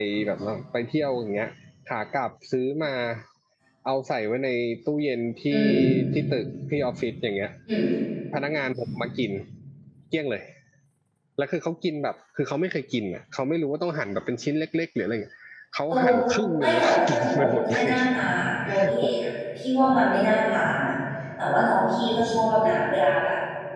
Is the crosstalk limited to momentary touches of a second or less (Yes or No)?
No